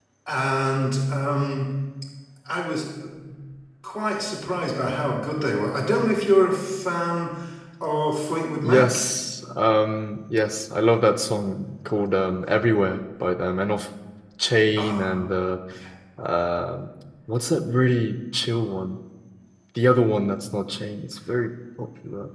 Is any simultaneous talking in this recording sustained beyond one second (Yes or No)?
No